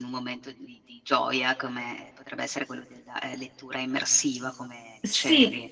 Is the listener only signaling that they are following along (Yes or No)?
No